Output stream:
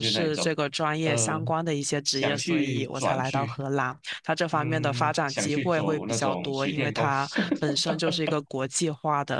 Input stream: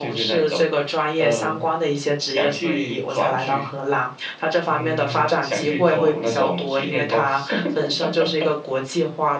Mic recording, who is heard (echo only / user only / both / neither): echo only